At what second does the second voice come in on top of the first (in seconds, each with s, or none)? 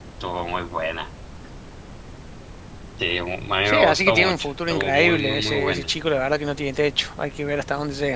3.6 s